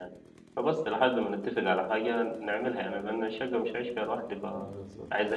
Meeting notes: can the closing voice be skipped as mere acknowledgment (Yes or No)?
No